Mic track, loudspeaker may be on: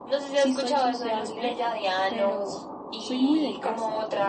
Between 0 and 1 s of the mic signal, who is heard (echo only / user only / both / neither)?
both